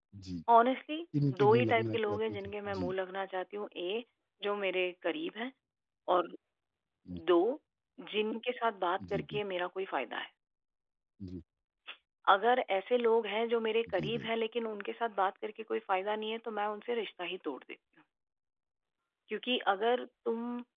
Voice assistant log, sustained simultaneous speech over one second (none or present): present